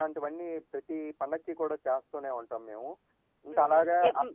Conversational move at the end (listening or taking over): taking over